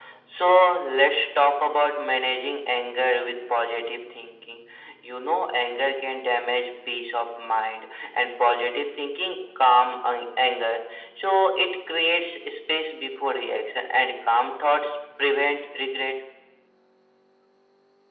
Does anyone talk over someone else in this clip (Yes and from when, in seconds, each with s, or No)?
No